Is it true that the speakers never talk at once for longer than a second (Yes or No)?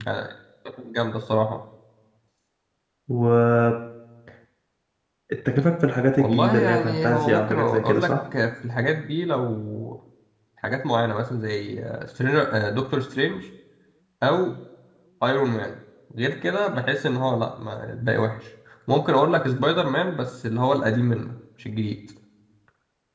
No